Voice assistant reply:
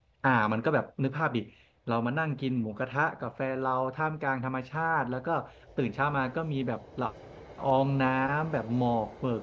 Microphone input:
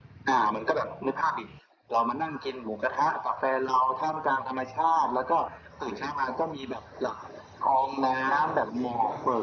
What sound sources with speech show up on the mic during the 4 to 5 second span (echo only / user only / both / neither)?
echo only